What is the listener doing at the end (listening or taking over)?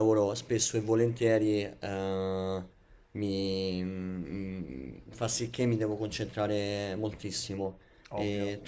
listening